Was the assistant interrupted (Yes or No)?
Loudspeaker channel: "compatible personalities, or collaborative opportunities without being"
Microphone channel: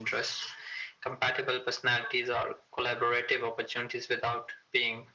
No